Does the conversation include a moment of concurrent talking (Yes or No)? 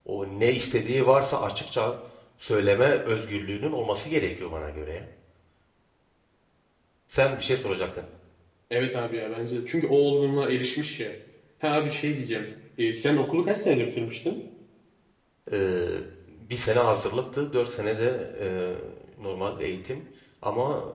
No